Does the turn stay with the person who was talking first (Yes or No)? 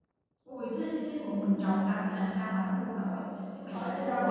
No